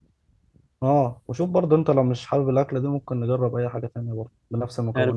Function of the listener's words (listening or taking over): taking over